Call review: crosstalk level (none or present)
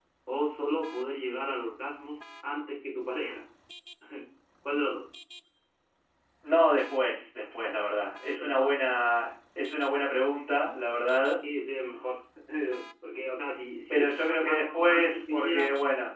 present